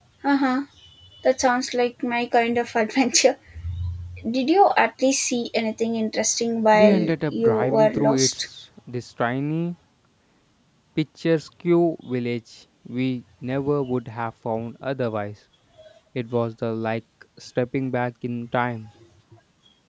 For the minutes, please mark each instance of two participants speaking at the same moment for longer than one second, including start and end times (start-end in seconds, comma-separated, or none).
6.7-8.5